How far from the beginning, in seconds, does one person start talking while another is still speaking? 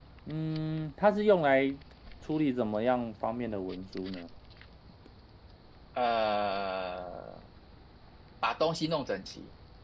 none

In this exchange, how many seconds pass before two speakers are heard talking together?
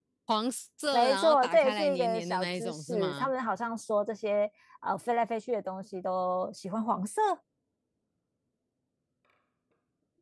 1 s

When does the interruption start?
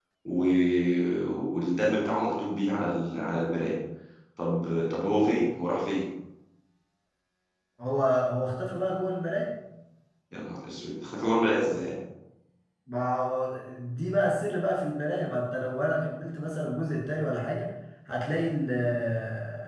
none

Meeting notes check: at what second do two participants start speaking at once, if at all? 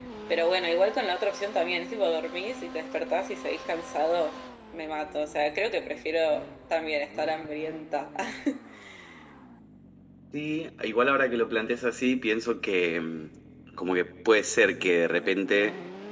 none

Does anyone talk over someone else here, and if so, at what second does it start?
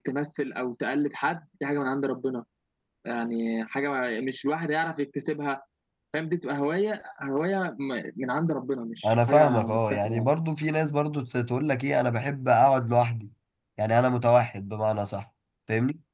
9 s

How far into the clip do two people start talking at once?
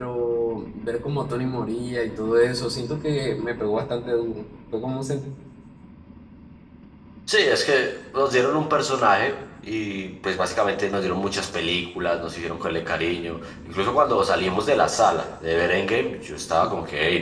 none

